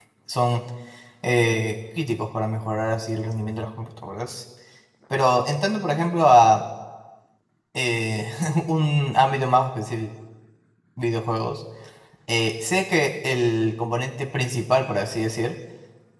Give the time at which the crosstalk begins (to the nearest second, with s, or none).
none